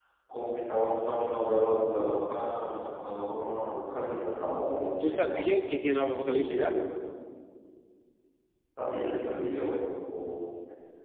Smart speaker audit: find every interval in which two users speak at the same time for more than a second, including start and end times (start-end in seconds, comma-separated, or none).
none